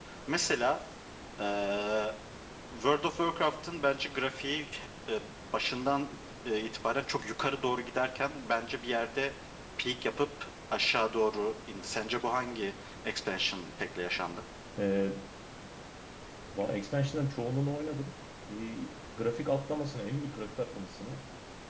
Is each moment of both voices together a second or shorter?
Yes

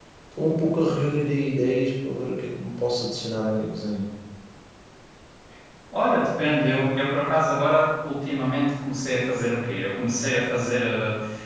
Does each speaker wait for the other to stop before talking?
Yes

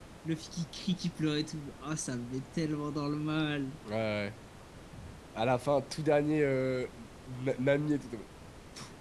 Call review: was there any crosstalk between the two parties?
No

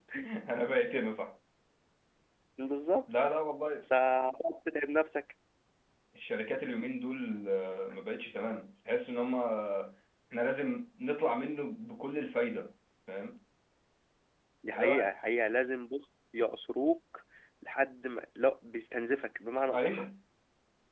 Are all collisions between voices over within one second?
Yes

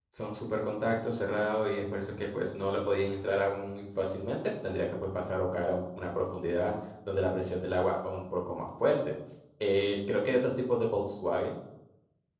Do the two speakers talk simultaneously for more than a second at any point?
No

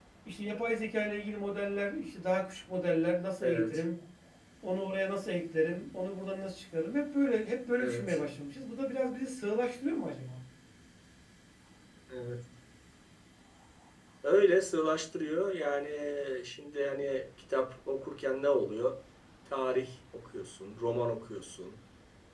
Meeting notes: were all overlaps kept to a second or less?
Yes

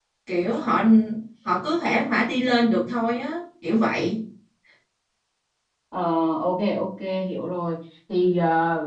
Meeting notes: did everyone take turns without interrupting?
Yes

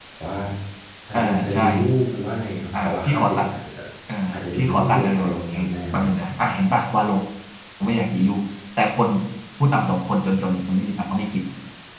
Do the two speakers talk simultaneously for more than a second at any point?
Yes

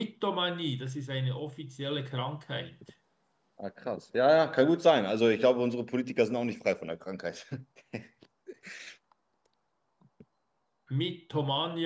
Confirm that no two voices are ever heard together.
Yes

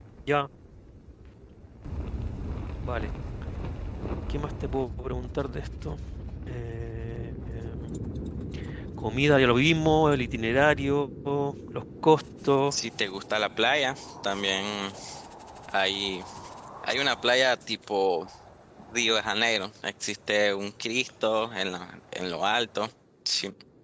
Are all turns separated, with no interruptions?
Yes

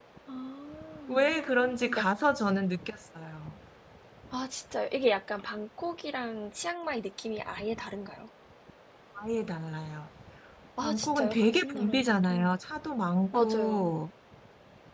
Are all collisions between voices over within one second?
No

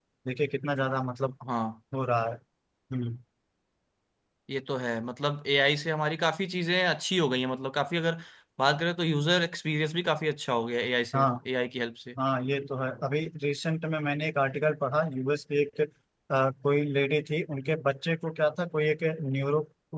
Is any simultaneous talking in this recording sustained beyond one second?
No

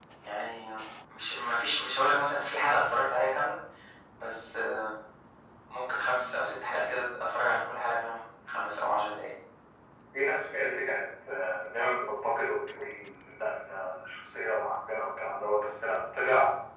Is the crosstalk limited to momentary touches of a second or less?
Yes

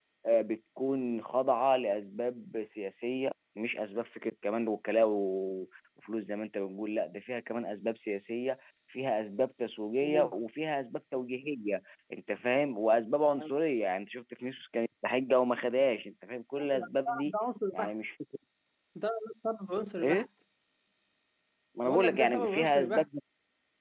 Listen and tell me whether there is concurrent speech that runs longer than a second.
Yes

